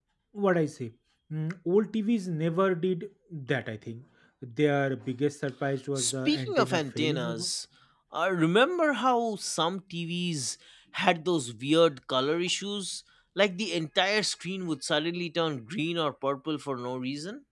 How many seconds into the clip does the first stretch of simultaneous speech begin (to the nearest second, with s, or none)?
6 s